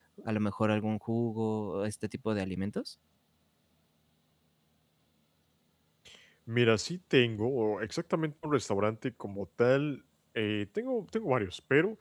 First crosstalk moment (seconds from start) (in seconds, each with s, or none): none